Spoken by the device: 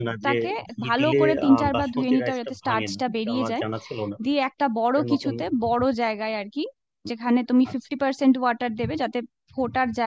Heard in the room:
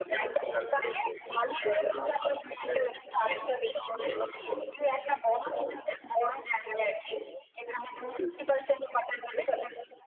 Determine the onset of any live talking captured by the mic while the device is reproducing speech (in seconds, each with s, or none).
8.2 s